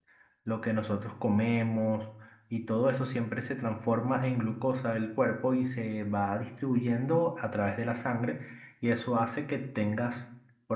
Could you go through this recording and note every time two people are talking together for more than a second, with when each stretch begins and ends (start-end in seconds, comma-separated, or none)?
none